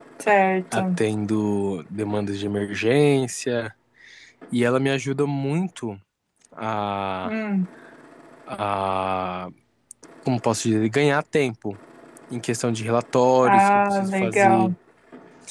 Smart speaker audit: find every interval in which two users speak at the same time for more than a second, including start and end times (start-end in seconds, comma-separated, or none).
13.4-14.7